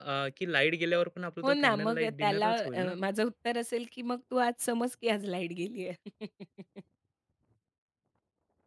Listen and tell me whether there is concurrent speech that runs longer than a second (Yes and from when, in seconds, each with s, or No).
Yes, from 1.4 s